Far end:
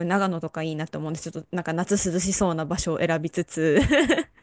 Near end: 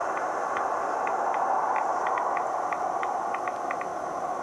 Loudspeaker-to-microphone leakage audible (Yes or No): No